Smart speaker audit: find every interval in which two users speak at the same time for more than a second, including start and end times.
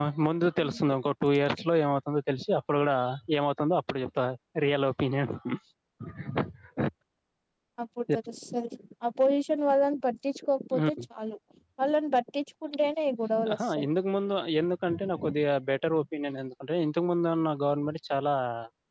none

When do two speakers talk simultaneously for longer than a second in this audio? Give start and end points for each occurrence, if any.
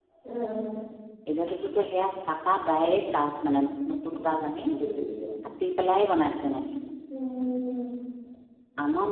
none

